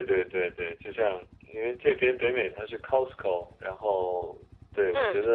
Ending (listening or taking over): listening